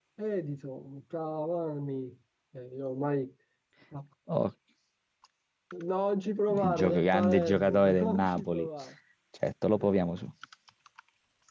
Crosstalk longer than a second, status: present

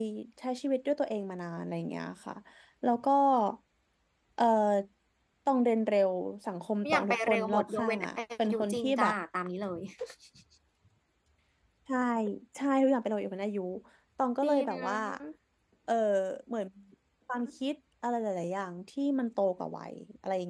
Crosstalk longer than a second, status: present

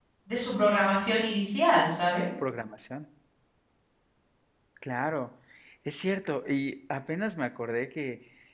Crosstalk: none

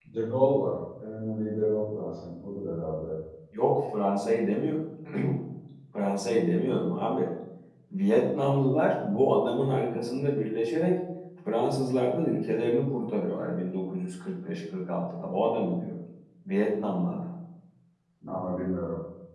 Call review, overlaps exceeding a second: none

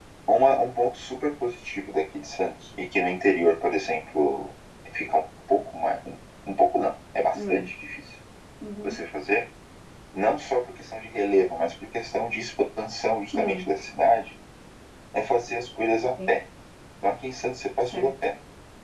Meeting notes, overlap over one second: none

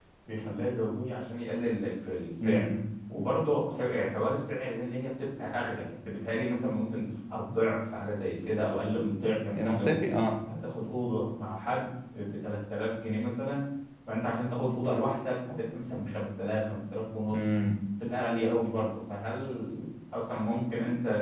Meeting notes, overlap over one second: none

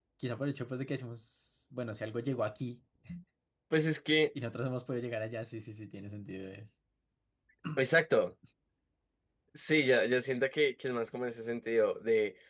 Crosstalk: none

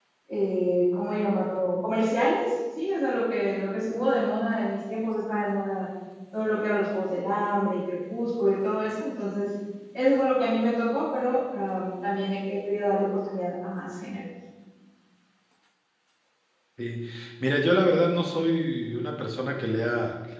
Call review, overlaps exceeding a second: none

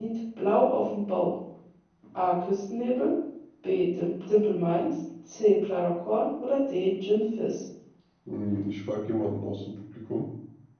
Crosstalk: none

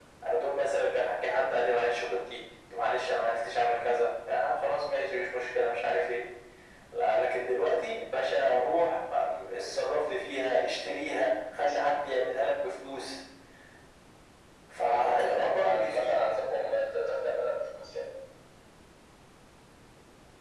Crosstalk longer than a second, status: present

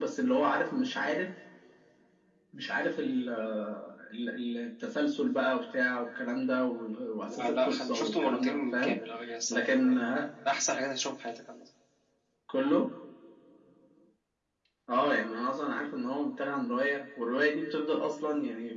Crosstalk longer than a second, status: present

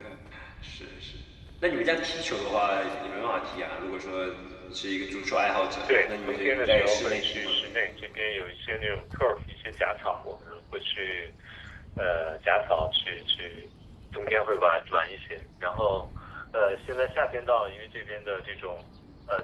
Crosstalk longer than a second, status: present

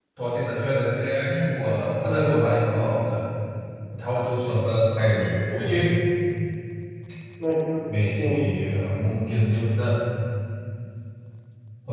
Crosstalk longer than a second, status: none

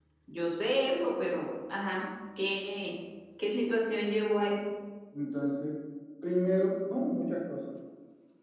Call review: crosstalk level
none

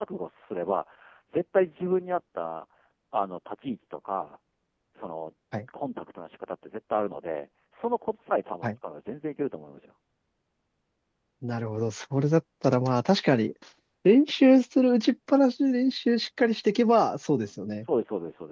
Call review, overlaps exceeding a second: none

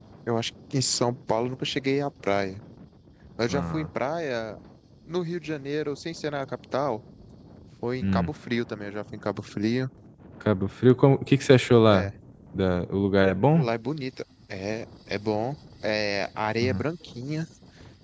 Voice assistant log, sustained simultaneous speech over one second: none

